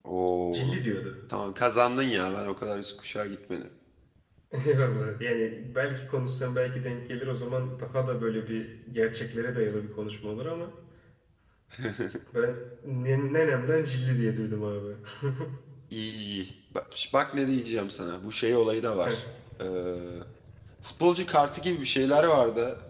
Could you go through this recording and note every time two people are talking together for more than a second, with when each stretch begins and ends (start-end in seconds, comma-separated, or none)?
none